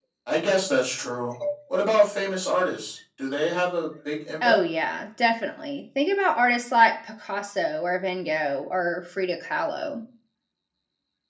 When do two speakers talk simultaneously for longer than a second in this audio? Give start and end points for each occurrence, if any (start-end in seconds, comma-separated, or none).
none